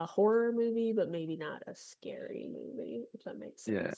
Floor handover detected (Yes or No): Yes